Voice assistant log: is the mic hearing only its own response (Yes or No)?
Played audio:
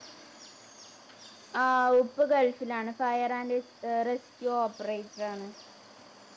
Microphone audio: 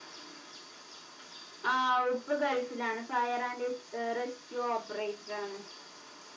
Yes